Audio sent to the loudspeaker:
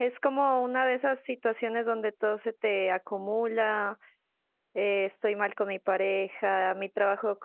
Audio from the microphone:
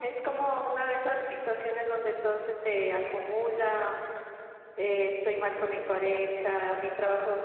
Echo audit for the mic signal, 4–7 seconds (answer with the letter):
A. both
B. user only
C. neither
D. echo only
A